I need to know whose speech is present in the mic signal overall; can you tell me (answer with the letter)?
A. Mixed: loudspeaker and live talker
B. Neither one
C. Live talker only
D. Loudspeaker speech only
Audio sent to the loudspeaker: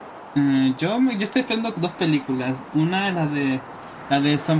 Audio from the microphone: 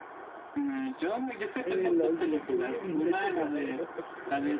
A